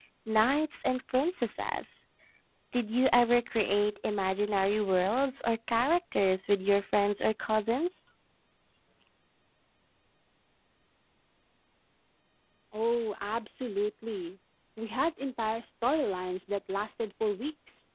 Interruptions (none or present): none